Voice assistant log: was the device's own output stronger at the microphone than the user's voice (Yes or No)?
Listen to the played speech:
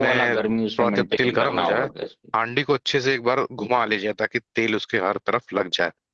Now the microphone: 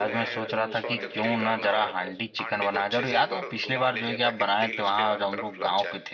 No